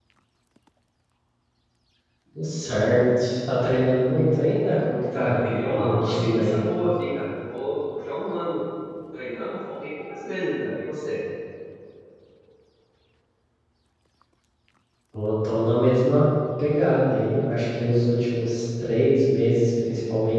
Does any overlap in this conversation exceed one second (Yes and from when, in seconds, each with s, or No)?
Yes, from 5.1 s